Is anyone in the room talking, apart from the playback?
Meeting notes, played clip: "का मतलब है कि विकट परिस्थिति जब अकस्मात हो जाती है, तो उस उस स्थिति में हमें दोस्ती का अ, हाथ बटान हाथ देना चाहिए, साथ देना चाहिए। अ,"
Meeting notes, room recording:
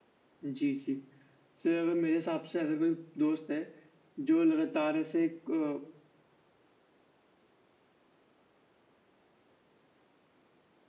Yes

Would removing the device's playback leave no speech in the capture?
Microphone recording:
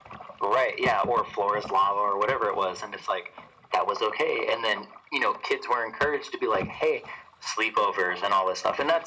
Yes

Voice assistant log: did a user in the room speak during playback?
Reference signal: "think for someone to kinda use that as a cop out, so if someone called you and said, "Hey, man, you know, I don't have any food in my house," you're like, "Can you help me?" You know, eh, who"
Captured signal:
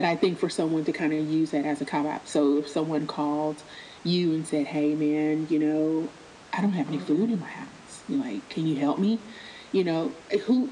Yes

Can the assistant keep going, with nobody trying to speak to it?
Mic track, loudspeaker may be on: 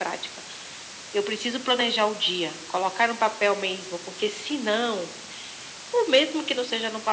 Yes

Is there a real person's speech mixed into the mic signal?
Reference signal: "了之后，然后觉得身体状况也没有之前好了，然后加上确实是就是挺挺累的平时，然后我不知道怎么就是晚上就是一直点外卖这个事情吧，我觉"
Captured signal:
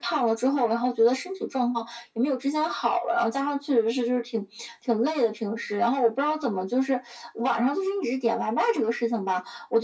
No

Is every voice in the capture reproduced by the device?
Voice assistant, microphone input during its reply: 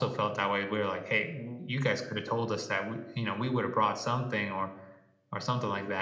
Yes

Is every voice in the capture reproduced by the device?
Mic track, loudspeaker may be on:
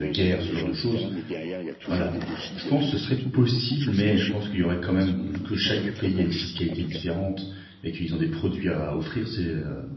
No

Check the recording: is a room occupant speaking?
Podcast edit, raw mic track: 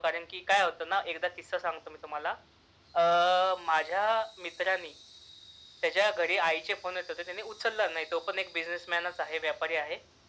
No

